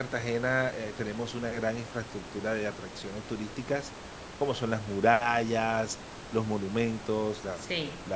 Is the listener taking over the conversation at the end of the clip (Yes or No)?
No